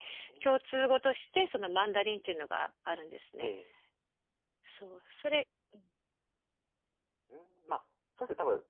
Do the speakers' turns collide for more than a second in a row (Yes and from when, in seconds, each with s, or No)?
No